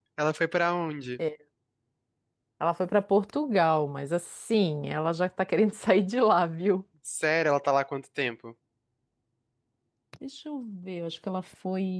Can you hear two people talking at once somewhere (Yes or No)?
No